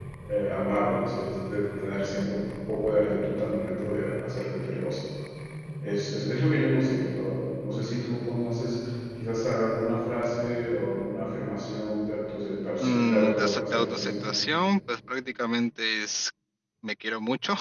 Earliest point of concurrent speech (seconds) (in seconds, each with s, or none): 12.8 s